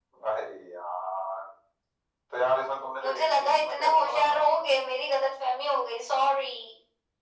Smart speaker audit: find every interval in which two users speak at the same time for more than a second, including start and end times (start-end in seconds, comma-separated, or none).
3.0-4.6